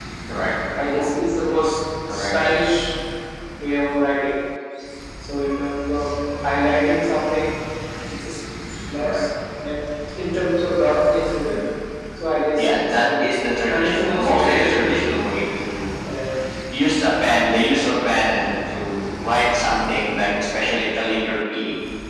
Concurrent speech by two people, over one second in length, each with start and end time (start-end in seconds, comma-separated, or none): 12.6-15.2